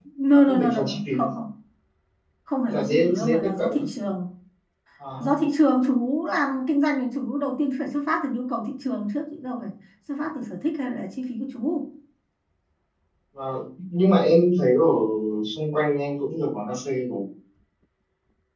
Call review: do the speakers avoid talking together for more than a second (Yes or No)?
No